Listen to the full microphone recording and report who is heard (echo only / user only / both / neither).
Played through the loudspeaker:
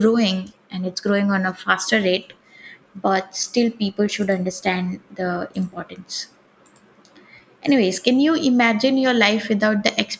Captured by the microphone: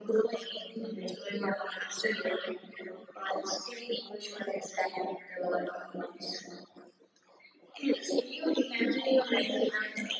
echo only